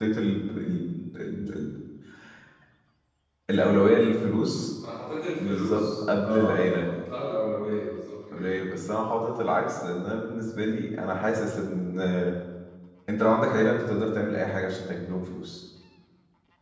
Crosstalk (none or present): present